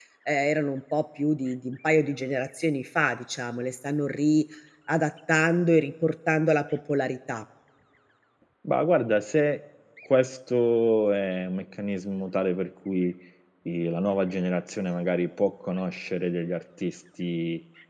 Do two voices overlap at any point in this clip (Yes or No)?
No